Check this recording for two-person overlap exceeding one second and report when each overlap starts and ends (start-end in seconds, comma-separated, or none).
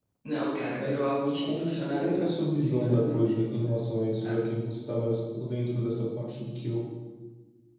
1.4-3.2